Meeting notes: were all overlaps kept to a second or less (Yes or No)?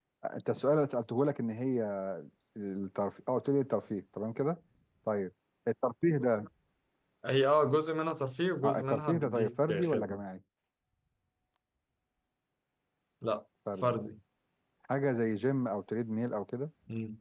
No